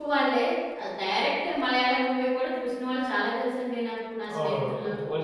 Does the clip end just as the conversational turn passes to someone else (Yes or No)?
Yes